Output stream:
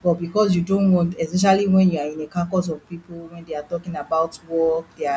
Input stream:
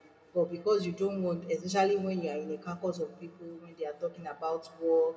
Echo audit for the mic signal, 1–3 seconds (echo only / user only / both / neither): echo only